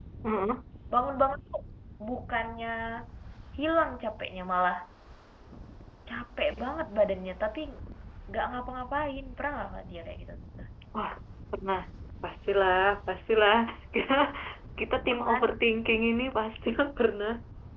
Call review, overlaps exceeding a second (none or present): none